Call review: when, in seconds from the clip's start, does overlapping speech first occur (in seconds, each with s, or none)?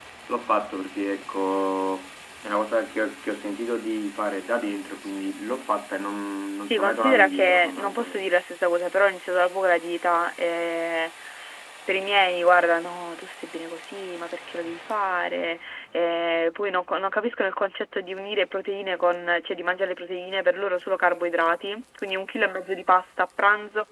6.7 s